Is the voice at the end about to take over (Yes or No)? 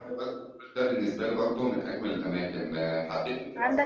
Yes